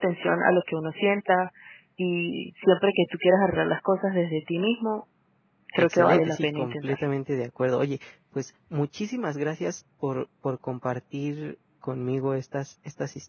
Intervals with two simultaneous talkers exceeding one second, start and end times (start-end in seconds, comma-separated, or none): 5.8-7.0